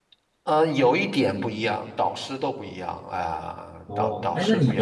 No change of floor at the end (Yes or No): No